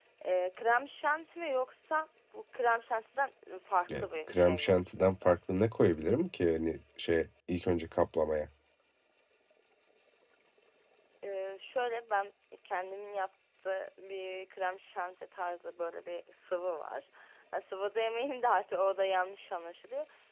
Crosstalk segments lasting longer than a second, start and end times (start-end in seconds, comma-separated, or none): 4.0-5.4